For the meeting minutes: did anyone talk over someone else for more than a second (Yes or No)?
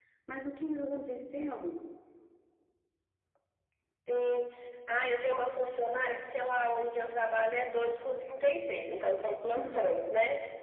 No